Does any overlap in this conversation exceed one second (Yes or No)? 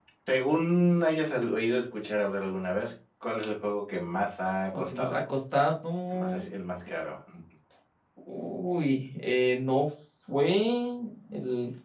No